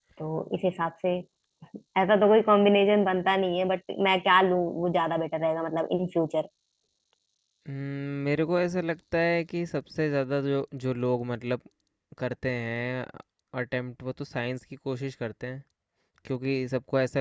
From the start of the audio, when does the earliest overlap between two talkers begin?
none

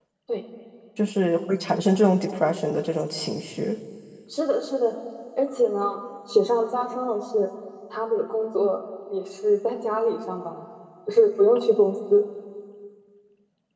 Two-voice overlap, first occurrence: none

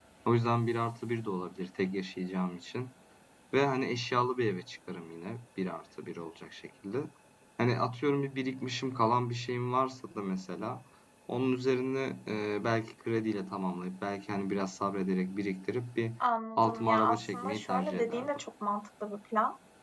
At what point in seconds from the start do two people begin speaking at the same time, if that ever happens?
16.6 s

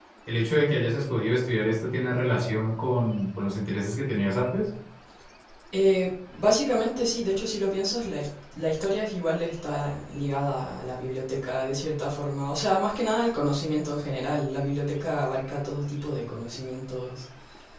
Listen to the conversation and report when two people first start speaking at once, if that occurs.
none

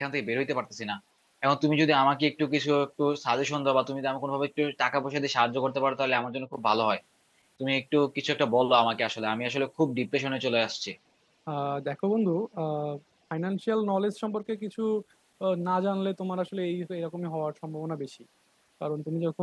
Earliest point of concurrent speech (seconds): none

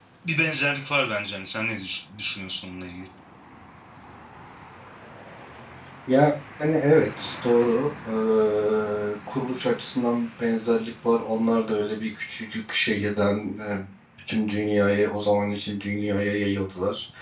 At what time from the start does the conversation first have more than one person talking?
none

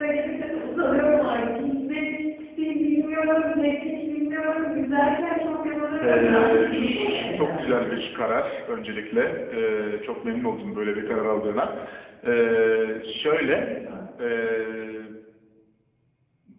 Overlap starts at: 6.0 s

